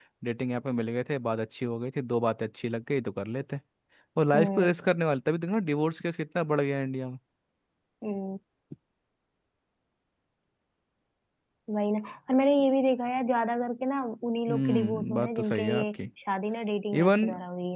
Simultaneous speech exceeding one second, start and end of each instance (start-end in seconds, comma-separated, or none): 14.5-16.0